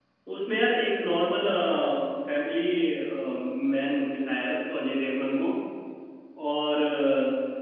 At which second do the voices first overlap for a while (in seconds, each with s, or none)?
none